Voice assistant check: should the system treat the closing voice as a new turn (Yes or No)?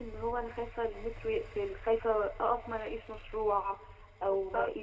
No